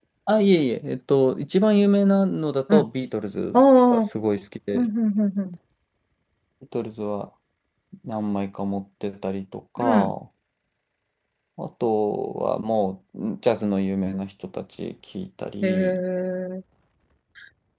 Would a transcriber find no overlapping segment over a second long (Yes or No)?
Yes